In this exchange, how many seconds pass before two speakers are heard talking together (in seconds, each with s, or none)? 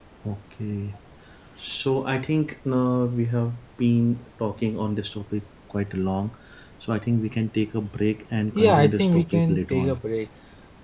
8.6 s